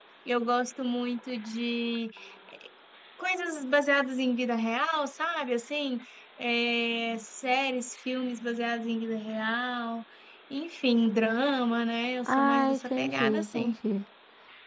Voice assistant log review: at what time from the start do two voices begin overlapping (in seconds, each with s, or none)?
12.3 s